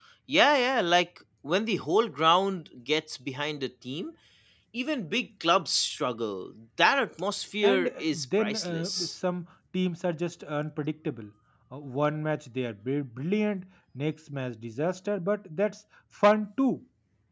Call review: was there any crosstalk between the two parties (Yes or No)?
Yes